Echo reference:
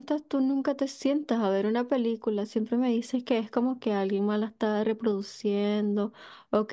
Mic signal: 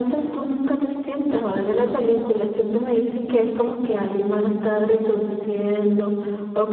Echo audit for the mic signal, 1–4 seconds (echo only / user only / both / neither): echo only